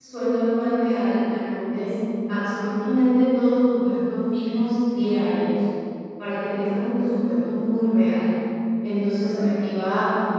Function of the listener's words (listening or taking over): listening